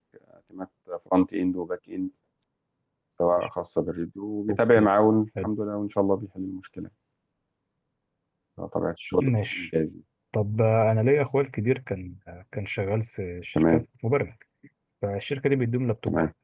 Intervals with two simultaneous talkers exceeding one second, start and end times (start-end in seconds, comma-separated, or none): none